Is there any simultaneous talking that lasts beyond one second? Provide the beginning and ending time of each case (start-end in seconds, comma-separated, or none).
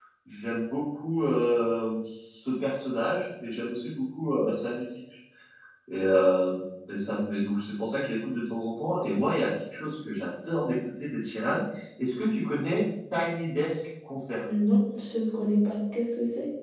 none